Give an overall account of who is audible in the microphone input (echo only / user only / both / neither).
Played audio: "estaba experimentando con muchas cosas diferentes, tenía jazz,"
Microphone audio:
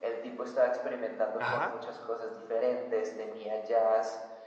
both